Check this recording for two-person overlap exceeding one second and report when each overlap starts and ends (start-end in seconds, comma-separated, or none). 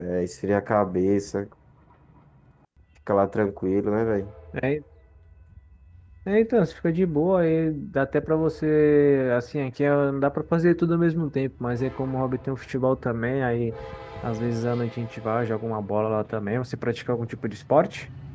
none